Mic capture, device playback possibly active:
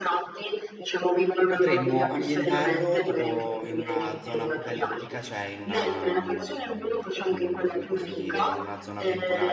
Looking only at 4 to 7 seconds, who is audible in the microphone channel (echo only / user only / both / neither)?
both